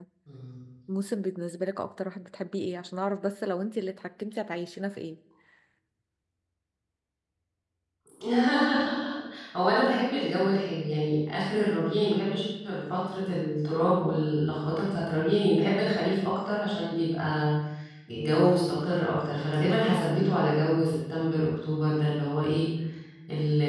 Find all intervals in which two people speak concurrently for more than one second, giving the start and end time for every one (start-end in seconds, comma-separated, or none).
none